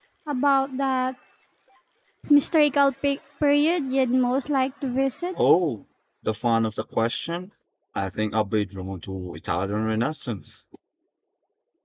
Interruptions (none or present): none